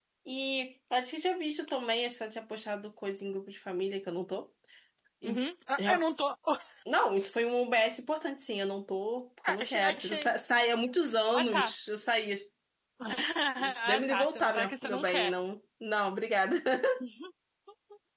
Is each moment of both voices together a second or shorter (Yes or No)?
No